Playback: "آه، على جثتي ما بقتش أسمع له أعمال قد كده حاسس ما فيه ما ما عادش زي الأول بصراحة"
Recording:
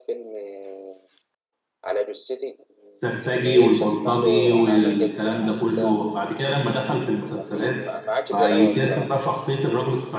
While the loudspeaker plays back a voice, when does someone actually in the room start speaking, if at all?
2.9 s

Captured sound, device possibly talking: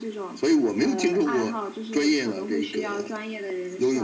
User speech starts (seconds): none

